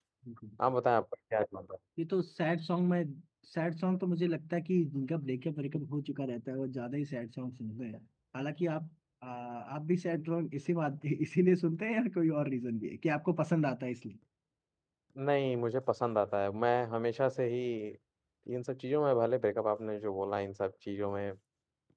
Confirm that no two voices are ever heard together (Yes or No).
Yes